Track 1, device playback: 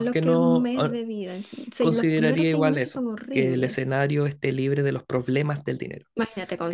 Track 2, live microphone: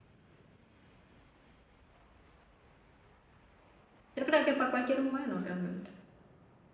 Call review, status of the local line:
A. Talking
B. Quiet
A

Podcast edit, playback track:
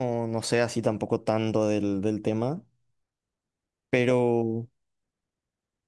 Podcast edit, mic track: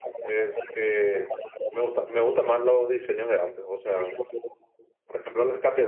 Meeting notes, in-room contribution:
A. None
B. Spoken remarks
B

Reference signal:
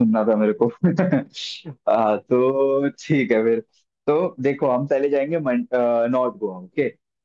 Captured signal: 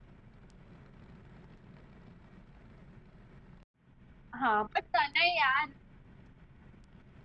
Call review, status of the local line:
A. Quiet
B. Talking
B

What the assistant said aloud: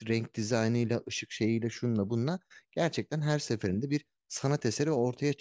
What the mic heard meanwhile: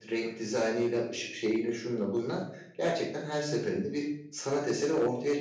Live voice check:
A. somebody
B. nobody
B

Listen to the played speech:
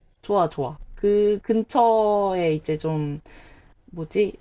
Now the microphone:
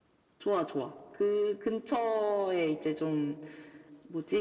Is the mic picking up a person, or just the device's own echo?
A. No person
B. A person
A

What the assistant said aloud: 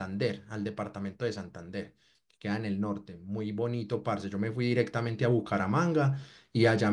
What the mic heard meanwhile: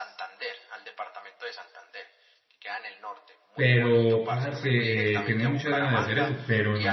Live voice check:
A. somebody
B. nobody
A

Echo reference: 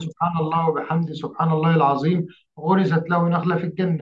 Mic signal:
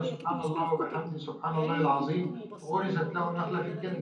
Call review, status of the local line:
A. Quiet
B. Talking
B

